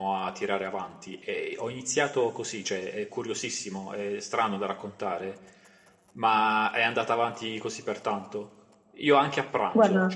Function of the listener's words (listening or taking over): listening